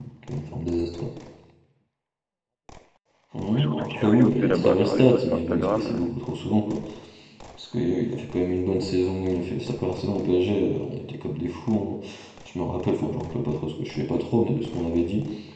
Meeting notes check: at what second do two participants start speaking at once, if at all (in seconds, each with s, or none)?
3.6 s